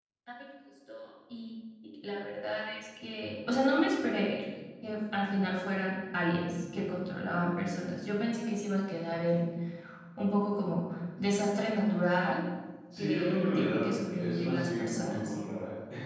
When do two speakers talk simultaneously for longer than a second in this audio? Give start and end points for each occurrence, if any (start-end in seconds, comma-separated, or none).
13.0-15.3